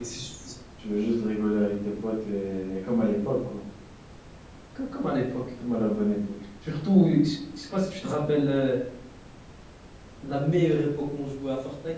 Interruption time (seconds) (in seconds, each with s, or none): none